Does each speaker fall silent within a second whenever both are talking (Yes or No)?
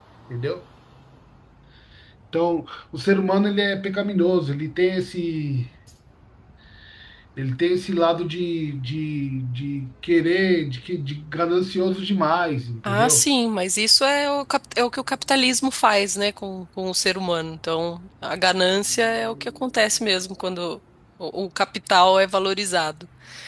Yes